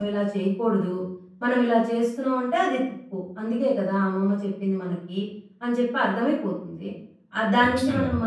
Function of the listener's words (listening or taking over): listening